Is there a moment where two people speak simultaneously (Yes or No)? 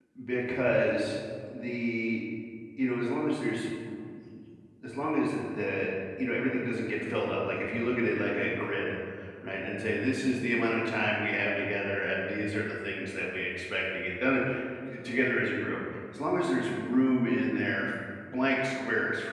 No